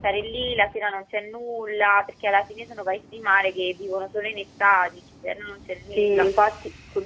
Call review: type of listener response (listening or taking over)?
taking over